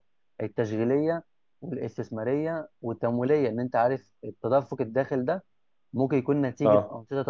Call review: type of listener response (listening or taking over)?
listening